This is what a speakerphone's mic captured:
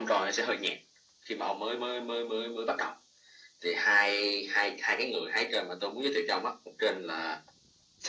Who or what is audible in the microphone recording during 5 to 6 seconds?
echo only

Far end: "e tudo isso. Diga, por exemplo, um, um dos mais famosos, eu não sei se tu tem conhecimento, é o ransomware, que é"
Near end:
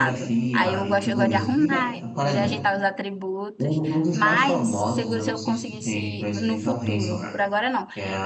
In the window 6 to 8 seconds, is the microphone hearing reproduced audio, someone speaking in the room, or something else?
both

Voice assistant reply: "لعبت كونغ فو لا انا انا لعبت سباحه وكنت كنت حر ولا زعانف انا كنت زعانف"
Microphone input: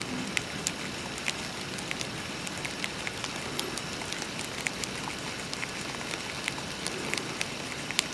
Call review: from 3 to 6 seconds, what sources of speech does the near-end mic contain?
neither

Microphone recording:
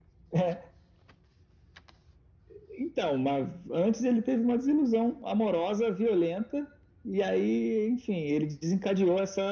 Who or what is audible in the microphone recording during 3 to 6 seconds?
echo only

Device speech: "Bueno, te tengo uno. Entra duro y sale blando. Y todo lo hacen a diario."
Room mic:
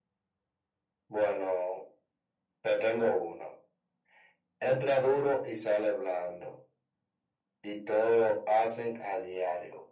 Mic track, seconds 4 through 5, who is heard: echo only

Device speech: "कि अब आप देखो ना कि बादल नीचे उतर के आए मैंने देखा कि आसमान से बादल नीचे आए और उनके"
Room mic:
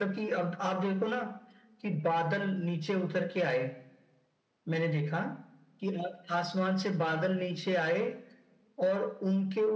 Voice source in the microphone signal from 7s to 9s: echo only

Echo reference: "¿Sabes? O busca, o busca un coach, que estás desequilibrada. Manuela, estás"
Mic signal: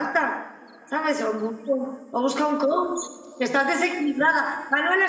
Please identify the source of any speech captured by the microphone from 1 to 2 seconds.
echo only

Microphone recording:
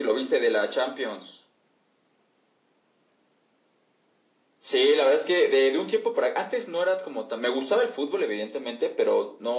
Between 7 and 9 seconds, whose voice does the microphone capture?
echo only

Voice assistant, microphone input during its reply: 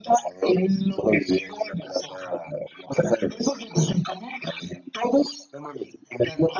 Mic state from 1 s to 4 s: echo only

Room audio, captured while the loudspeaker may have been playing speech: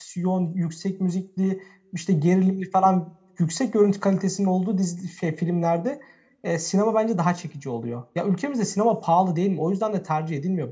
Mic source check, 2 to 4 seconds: user only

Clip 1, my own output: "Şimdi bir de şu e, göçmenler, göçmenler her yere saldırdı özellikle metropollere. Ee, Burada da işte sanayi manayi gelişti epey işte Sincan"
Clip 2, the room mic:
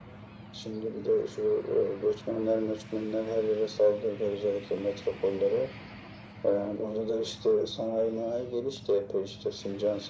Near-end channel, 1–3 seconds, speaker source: echo only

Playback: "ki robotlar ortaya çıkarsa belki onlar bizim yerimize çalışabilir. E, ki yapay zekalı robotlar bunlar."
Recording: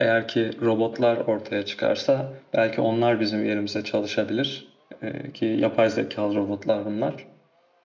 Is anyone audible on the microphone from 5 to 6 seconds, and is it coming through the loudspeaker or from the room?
echo only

